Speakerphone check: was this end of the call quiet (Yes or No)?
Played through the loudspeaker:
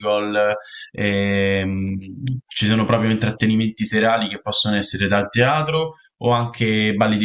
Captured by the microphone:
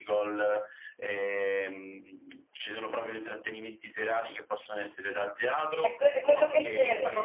No